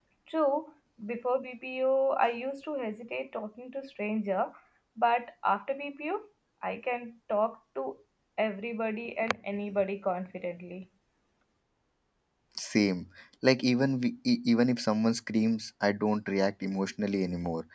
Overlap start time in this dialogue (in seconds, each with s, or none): none